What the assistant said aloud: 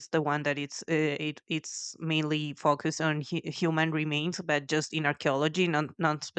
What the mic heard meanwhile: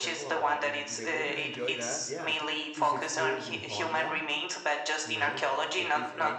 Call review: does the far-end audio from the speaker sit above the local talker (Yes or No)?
Yes